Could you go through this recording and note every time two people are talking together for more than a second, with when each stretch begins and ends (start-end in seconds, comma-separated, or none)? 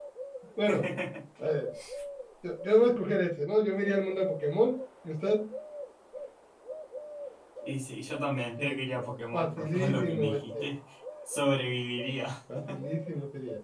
9.3-10.6